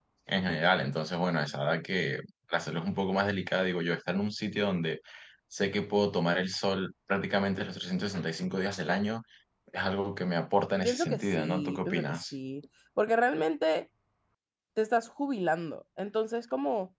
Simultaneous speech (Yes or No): Yes